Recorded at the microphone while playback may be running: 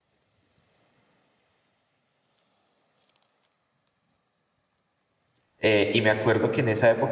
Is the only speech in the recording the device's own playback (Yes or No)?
No